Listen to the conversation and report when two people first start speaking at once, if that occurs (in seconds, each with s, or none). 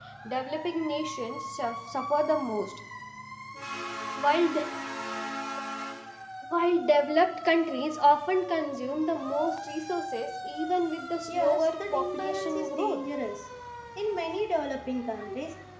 11.3 s